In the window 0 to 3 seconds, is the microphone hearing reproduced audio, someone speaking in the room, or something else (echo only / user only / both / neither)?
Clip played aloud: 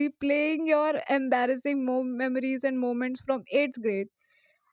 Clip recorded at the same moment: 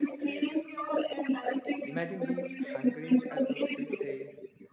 both